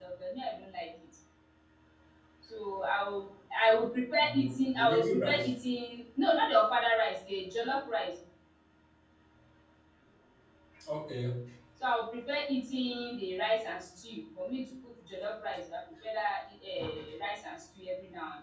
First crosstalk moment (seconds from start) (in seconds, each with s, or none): 4.2 s